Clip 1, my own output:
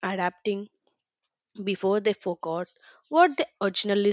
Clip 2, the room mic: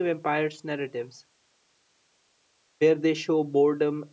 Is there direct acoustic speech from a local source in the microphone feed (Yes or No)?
Yes